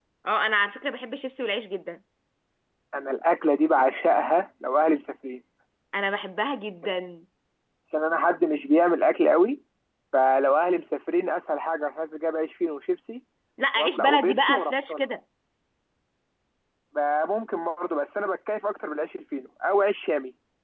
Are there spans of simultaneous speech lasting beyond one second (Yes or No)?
Yes